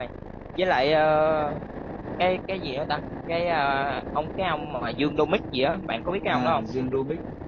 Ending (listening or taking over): taking over